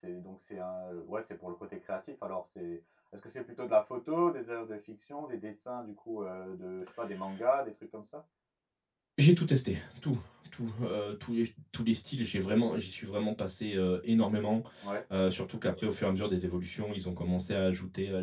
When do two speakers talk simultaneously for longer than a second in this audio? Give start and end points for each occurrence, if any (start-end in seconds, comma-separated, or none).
none